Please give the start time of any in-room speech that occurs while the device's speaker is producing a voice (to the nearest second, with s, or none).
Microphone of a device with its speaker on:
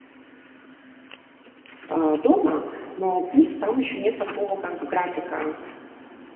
2 s